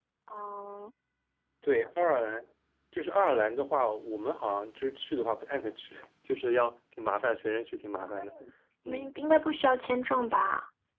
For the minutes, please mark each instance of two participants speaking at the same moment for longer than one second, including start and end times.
none

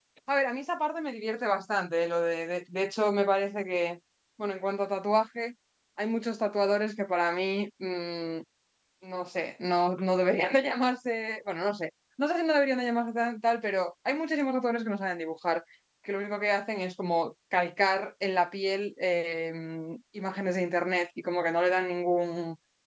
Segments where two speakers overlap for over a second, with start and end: none

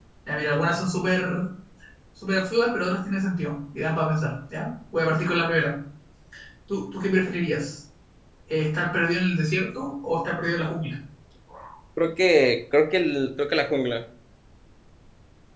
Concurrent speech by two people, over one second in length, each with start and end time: none

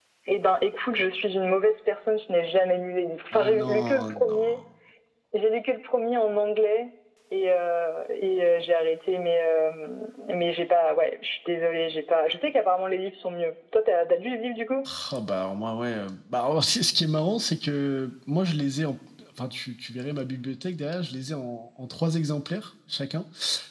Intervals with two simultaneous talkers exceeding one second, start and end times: 3.3-4.6

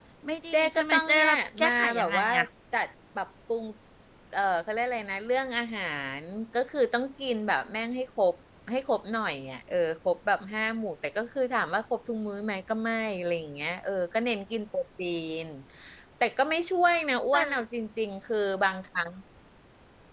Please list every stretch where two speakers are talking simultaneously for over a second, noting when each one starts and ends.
0.5-2.3

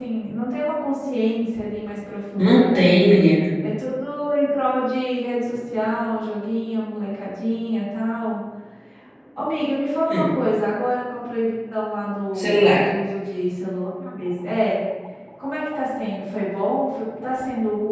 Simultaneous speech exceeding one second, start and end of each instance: none

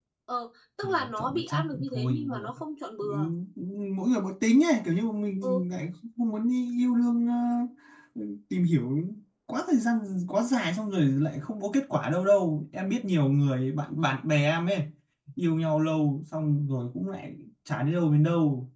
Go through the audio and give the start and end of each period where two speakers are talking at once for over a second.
0.8-2.5

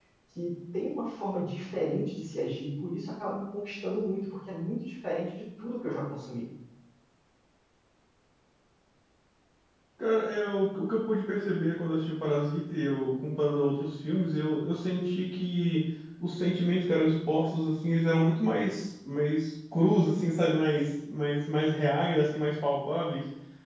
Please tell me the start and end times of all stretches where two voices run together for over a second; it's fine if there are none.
none

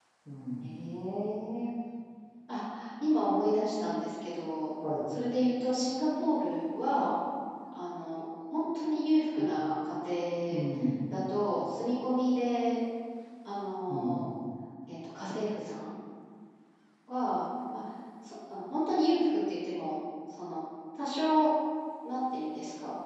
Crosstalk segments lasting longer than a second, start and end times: none

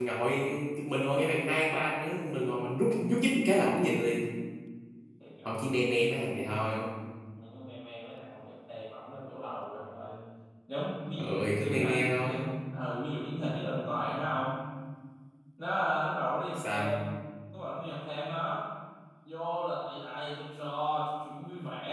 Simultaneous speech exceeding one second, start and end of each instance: 11.2-12.4

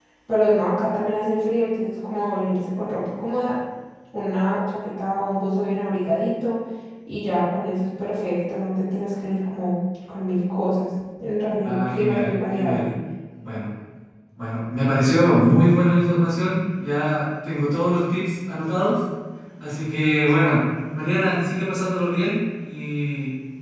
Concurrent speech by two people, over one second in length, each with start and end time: 11.6-12.9

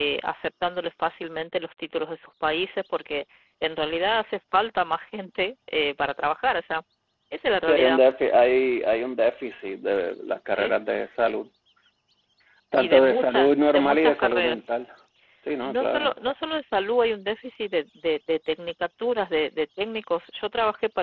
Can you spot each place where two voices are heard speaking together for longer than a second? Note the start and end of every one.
12.8-14.6

